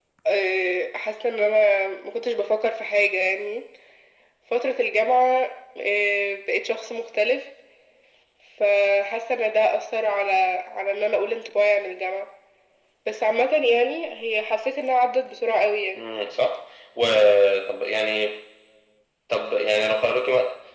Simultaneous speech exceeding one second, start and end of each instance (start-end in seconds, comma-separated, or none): none